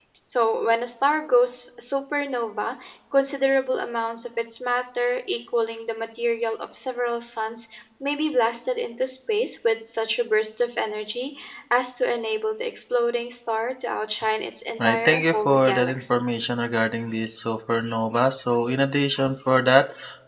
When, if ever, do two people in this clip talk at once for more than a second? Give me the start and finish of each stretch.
14.8-16.2

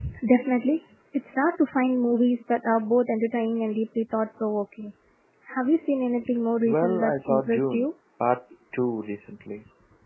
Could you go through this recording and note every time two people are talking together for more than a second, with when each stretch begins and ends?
6.7-7.8

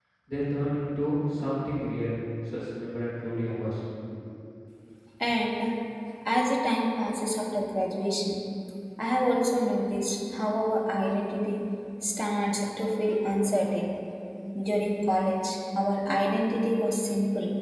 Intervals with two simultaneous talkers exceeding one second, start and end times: none

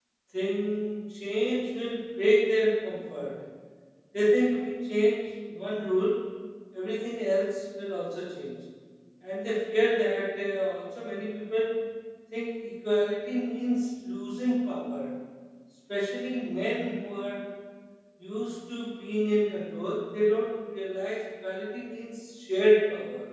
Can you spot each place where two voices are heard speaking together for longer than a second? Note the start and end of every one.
none

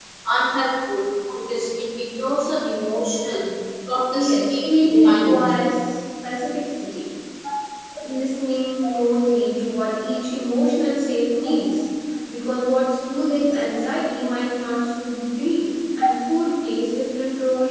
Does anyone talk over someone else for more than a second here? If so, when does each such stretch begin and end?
4.1-5.5

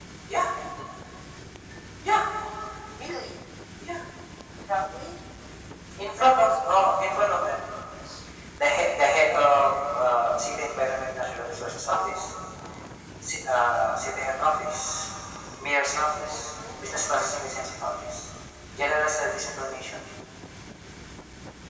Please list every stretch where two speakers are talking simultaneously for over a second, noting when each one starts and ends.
6.2-7.5

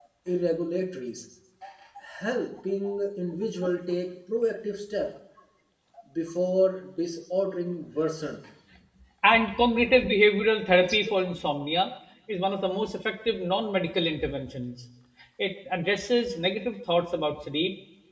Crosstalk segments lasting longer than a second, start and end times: none

